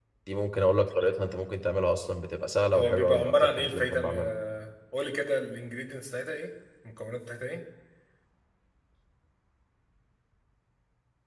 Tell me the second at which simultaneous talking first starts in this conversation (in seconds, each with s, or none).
2.7 s